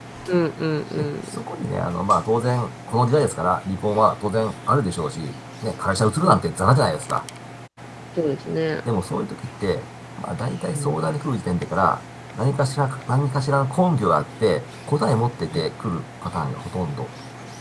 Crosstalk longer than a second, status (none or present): none